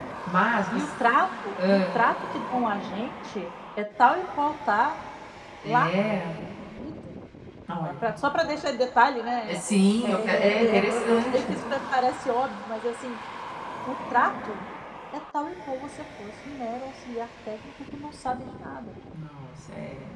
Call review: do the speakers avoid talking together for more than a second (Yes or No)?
No